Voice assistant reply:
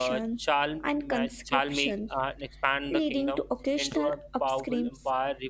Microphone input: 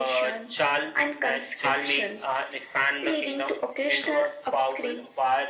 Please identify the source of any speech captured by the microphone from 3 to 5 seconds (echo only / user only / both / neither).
echo only